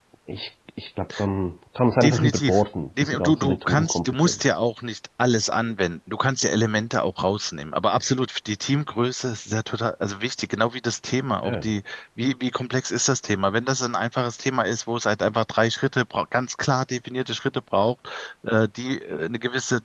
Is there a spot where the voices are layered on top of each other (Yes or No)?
Yes